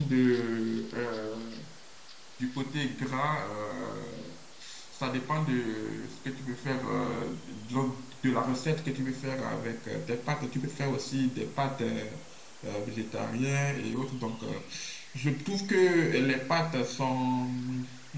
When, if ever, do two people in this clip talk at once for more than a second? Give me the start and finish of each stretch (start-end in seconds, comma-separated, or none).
none